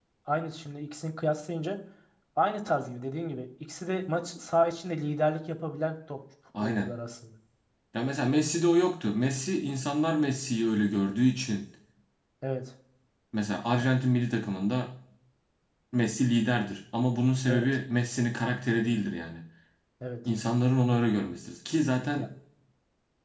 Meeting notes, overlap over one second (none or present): none